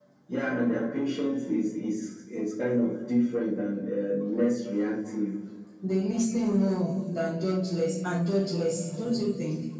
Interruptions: none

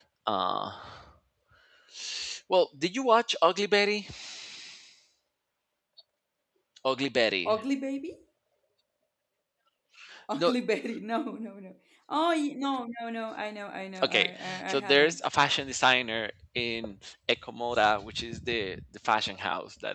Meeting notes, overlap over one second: present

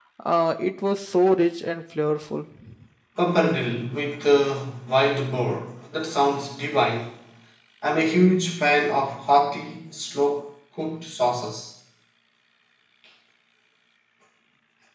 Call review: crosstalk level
none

